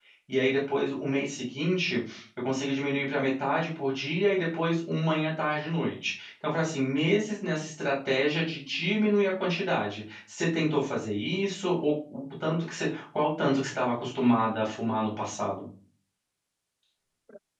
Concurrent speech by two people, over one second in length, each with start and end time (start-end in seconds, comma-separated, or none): none